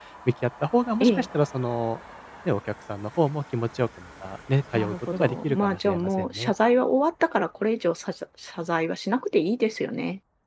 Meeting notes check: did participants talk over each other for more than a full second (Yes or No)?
Yes